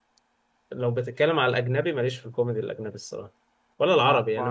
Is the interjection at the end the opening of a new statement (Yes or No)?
No